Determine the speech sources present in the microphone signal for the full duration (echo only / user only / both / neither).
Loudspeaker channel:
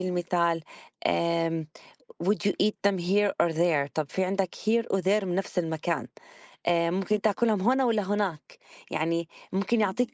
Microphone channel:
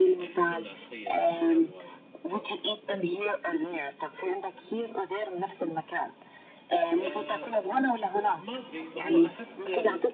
both